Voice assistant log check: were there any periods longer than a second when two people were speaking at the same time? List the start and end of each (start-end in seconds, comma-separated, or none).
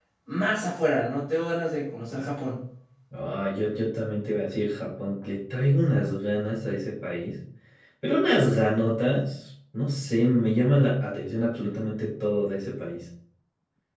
none